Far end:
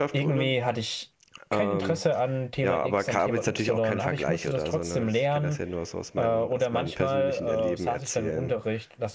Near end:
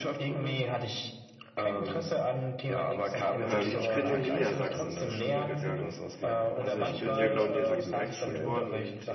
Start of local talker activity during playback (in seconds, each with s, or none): 3.4 s